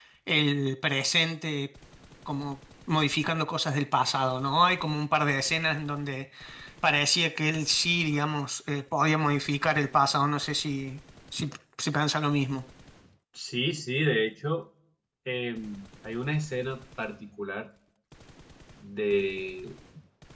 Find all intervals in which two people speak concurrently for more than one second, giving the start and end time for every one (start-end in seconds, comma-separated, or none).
none